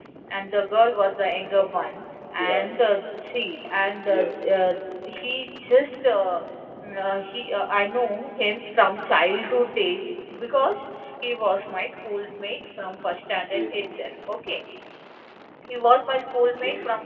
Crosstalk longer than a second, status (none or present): none